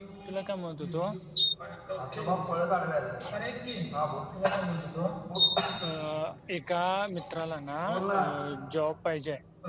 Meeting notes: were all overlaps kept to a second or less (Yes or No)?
Yes